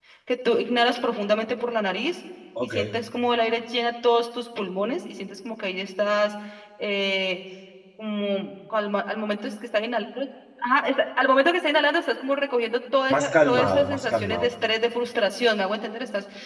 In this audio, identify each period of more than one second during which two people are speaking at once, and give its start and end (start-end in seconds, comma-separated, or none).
13.1-14.5